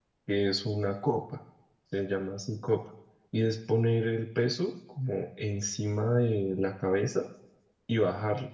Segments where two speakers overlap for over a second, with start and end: none

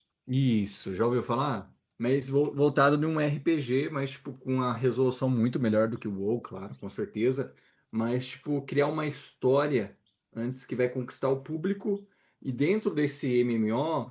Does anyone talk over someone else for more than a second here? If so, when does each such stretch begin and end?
none

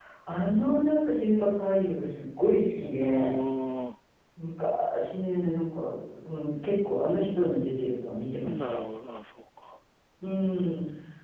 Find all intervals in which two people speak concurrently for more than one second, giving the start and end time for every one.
none

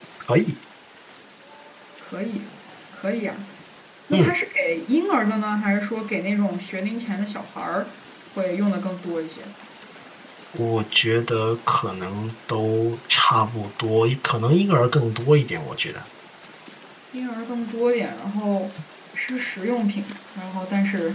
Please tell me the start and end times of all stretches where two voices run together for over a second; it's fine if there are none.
none

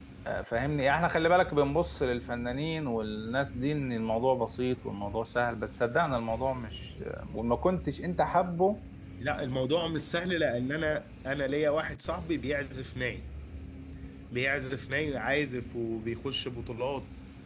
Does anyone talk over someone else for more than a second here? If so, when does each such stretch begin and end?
none

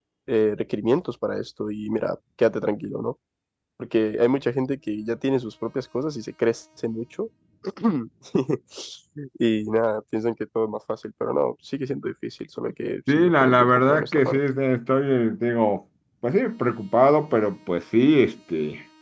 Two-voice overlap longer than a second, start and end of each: 13.1-14.4

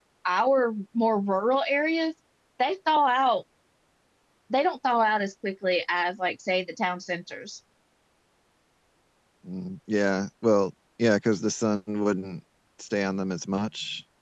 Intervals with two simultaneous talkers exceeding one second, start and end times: none

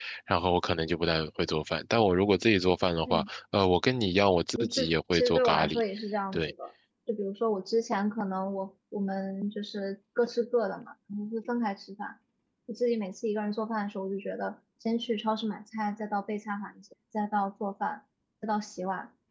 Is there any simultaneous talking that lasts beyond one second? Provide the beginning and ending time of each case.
4.6-5.8

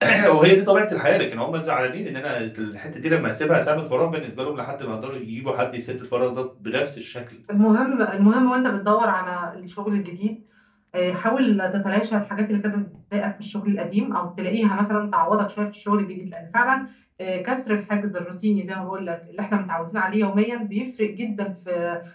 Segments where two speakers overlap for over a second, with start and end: none

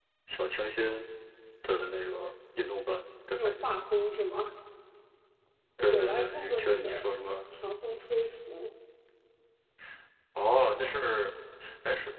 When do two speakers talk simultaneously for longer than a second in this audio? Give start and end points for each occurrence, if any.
5.8-7.0

